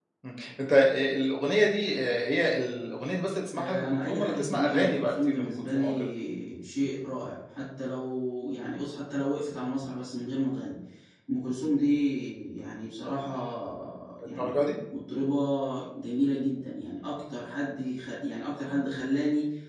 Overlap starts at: 3.5 s

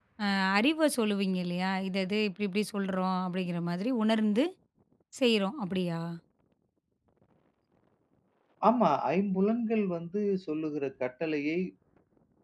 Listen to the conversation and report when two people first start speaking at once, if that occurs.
none

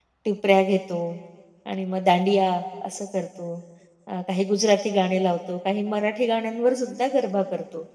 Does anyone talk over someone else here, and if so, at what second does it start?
none

